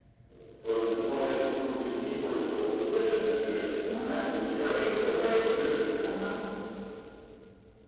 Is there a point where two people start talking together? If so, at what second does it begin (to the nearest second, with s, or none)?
4 s